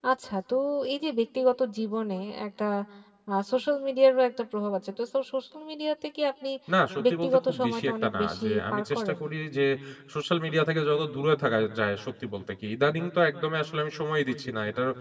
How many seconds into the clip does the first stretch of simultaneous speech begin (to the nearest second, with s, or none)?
7 s